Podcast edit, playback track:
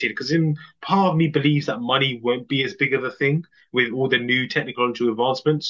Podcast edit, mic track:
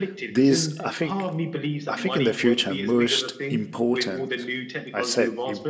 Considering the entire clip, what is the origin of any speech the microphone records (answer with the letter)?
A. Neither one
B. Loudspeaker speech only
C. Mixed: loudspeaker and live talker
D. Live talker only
C